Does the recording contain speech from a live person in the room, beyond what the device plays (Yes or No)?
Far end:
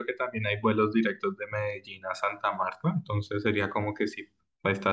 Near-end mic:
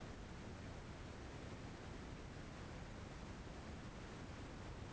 No